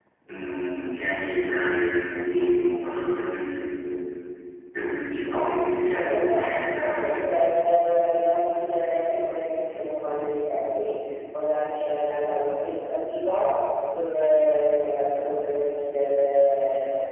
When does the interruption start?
5.2 s

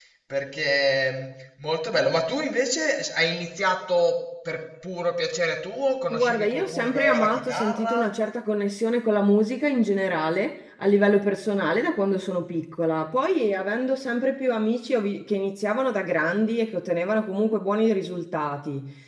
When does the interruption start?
6.1 s

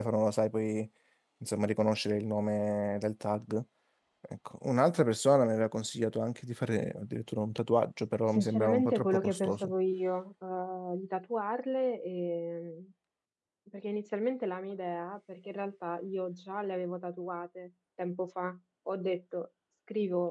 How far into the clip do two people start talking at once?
8.3 s

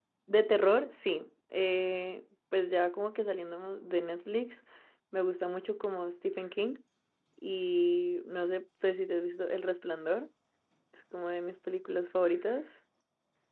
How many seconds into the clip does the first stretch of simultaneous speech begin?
none

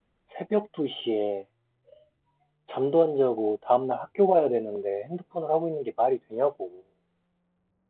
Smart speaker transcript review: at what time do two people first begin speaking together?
none

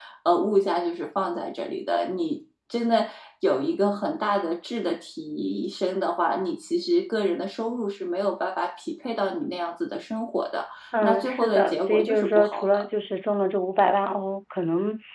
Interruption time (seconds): 10.9 s

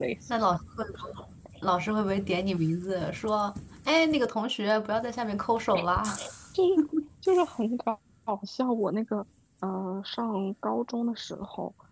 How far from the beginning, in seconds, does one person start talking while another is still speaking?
none

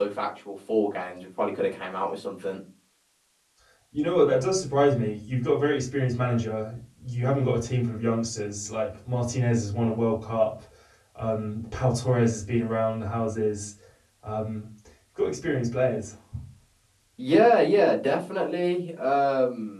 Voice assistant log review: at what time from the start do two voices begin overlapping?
none

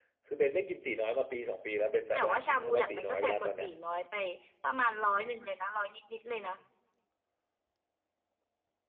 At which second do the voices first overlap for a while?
2.1 s

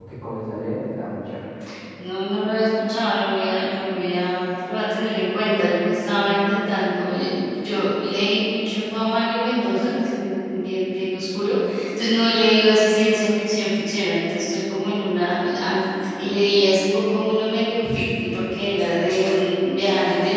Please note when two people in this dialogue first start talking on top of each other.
none

